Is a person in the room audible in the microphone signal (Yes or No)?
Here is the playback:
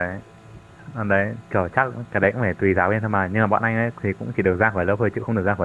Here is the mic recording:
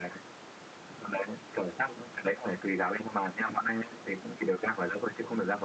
No